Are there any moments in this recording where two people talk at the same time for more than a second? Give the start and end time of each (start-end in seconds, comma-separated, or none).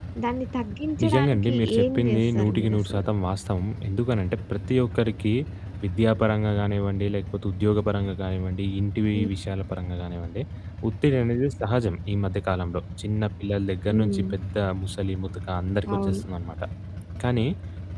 1.0-3.0